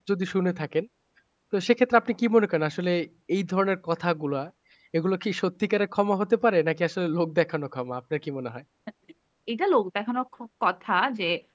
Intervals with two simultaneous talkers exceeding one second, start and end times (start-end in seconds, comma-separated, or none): none